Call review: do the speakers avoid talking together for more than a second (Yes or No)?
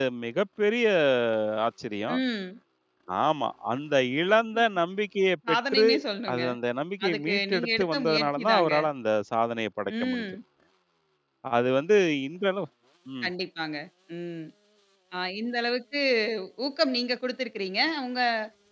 No